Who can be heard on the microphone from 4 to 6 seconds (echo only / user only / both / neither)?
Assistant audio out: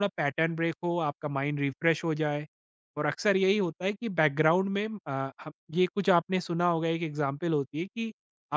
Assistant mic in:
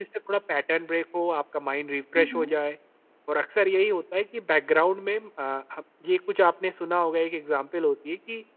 echo only